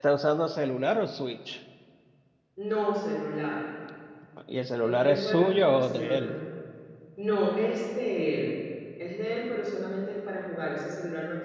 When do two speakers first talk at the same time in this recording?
5 s

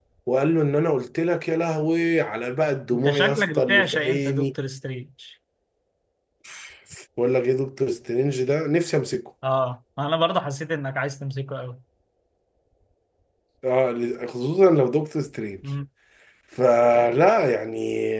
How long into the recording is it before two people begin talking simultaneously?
3 s

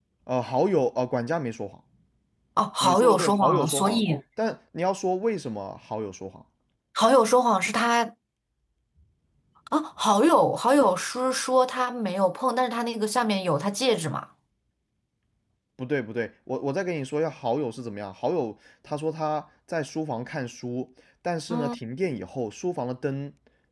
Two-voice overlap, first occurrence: 3 s

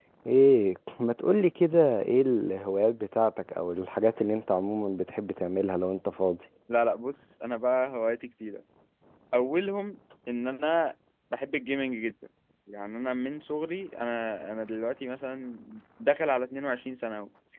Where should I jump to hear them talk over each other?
none

